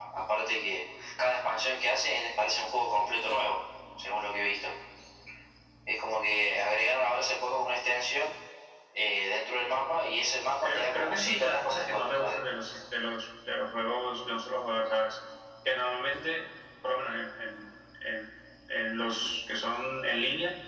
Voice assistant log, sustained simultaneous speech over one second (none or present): present